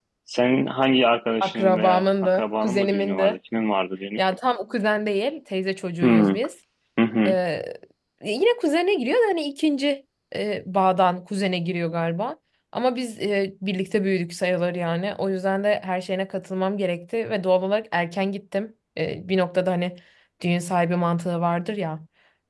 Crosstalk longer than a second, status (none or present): present